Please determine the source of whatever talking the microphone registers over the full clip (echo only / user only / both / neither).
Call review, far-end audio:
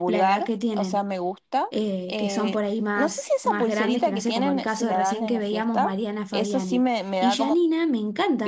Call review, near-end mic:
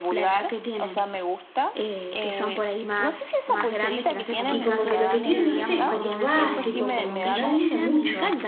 both